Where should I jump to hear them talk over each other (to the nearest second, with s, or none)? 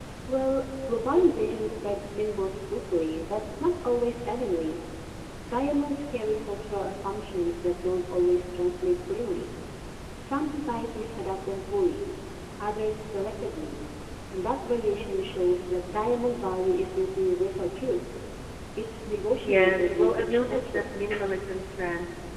19 s